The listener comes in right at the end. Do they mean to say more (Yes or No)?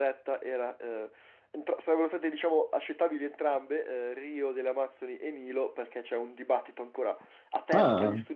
No